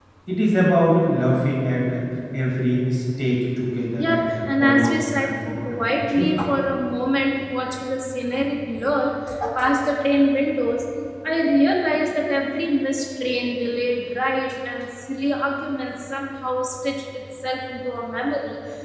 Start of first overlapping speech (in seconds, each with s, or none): 4.0 s